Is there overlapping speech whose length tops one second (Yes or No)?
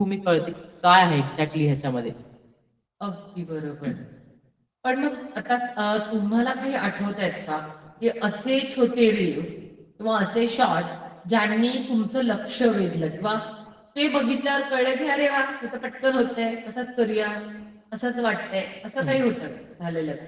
No